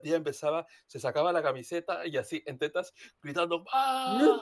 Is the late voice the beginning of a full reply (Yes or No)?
No